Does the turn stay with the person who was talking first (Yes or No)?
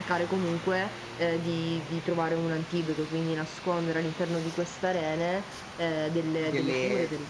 No